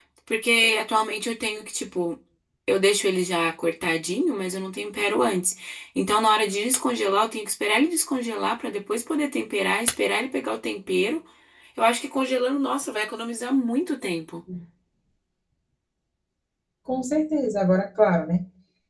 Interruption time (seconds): none

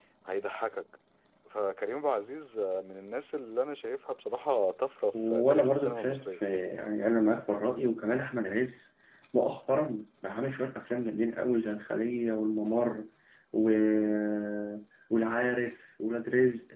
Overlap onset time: 5 s

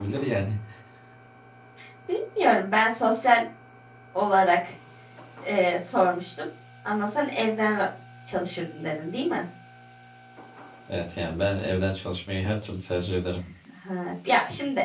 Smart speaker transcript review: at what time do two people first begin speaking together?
none

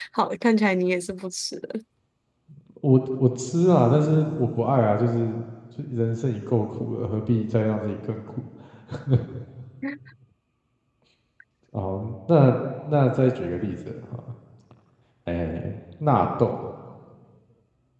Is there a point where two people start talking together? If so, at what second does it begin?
none

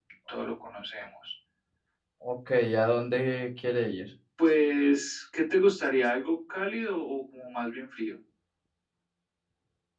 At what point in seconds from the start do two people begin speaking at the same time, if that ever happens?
none

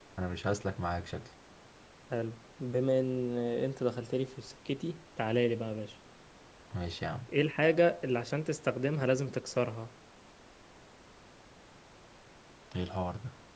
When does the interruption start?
none

